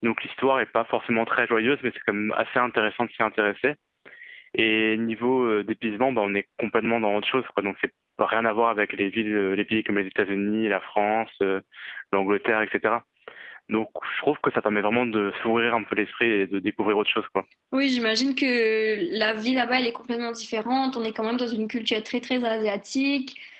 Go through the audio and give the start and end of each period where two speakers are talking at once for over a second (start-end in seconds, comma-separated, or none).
none